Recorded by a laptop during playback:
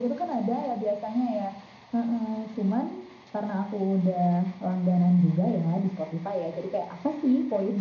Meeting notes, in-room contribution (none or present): none